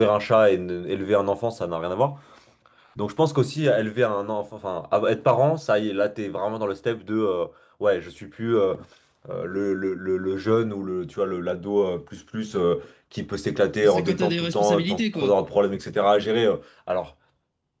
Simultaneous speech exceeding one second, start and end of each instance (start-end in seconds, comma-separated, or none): 13.8-15.3